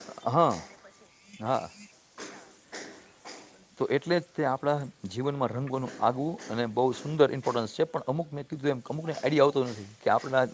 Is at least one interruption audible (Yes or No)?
No